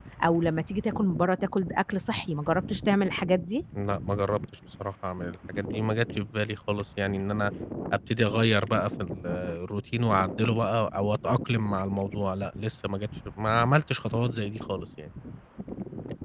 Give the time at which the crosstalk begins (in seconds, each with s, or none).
none